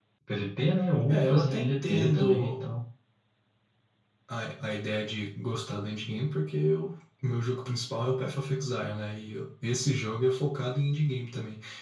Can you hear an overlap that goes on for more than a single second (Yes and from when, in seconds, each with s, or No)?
Yes, from 1.1 s